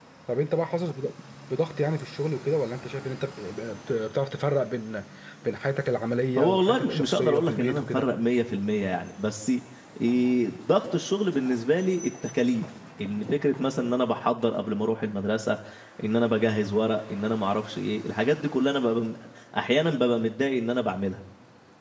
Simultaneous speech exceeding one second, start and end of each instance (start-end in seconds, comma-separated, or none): 6.4-8.1